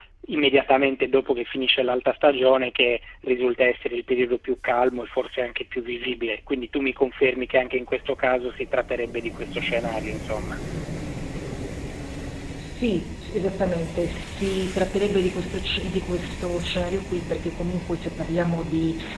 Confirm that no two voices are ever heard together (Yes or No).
Yes